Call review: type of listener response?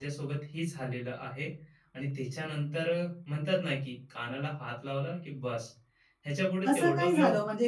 taking over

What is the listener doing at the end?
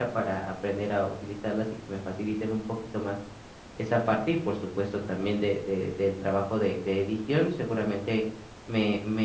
listening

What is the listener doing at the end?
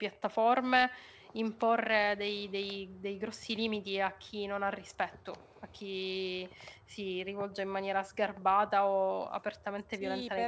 taking over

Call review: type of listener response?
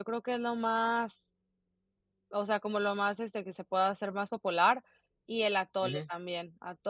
listening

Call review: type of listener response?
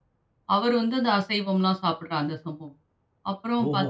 listening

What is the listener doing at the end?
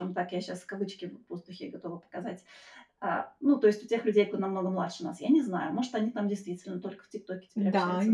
taking over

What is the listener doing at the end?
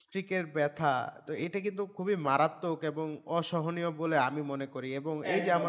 listening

